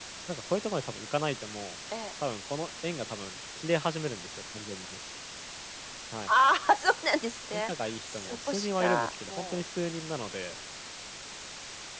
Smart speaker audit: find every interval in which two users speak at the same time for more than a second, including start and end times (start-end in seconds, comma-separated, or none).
7.5-9.6